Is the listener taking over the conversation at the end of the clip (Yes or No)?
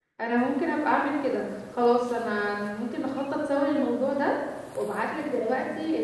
No